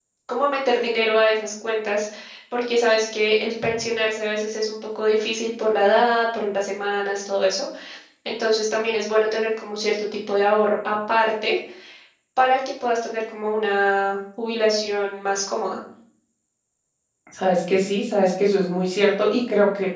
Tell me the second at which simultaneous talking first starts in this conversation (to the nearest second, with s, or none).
none